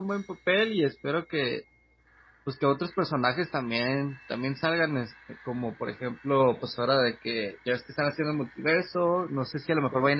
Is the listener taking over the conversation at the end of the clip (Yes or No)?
No